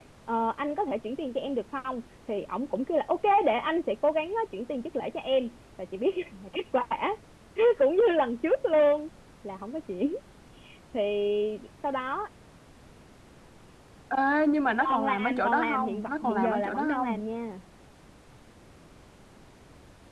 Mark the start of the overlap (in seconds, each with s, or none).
14.8 s